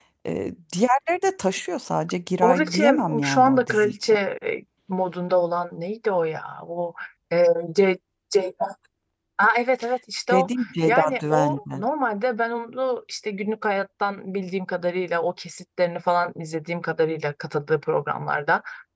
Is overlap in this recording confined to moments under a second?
No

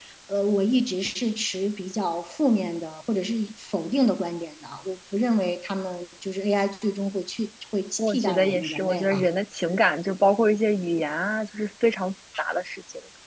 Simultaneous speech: Yes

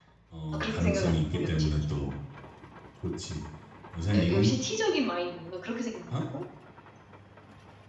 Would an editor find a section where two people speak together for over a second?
Yes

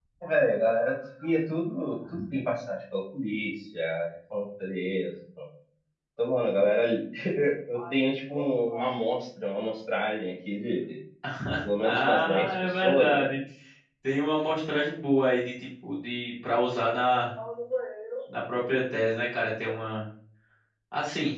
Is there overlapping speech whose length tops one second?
Yes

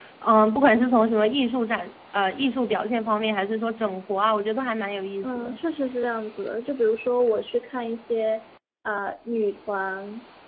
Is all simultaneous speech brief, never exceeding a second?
Yes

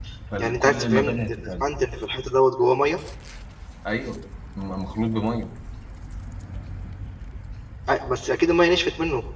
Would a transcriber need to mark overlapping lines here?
Yes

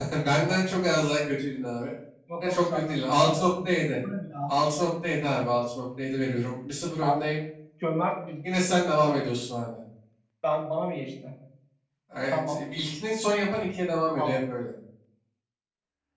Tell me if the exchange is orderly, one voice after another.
No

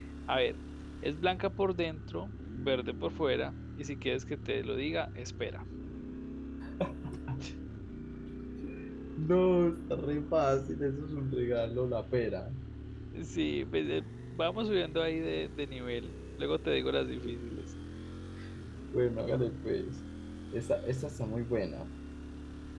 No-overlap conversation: Yes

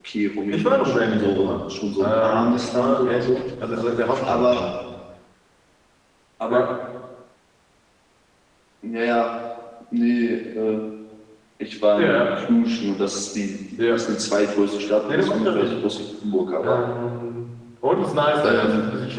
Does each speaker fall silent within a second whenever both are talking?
No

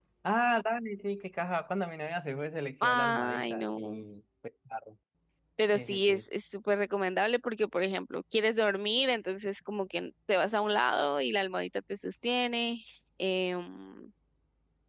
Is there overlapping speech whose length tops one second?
Yes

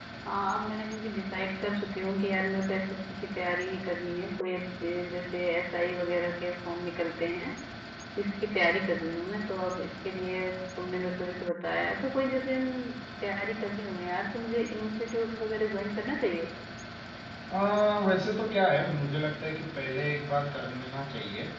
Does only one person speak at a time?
Yes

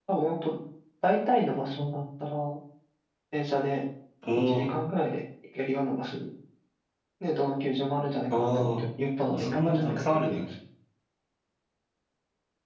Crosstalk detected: Yes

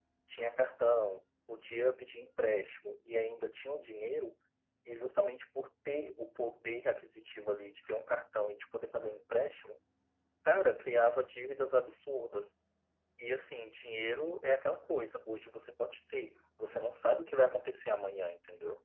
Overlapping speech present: No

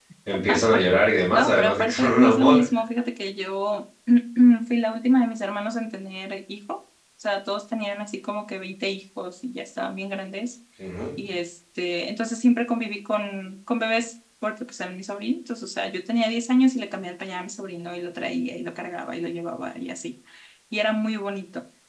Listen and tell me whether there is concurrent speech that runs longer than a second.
Yes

